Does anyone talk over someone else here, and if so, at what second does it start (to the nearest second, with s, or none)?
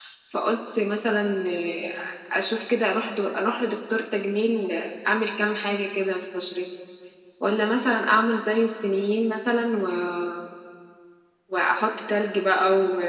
none